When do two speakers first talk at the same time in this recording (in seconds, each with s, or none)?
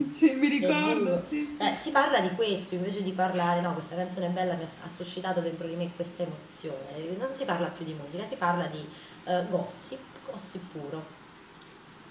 0.6 s